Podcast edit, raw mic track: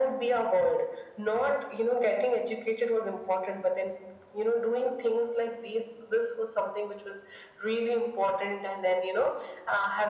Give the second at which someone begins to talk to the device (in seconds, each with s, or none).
none